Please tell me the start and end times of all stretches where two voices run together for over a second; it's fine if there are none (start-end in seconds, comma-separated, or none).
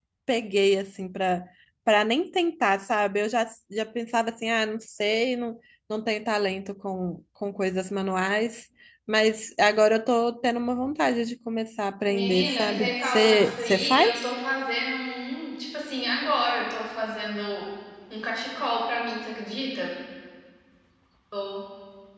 12.1-14.2